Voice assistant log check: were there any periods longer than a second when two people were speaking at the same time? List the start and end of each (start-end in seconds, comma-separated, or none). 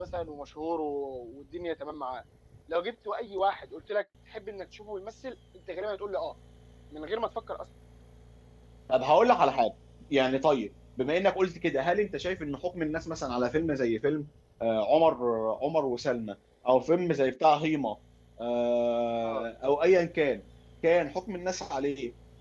none